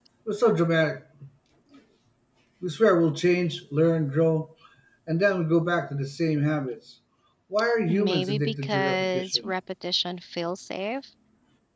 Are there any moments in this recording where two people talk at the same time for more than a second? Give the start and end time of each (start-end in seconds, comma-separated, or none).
7.9-9.5